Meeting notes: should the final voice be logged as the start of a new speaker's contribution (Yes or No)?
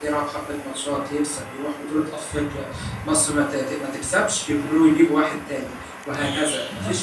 No